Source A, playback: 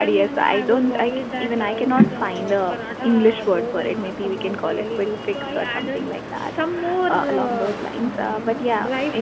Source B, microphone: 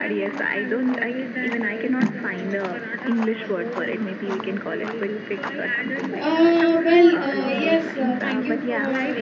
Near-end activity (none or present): present